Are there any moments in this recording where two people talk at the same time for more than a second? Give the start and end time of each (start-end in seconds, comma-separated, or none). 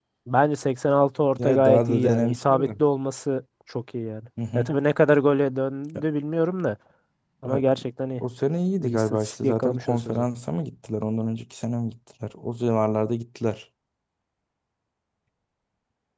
1.4-2.7, 8.8-10.2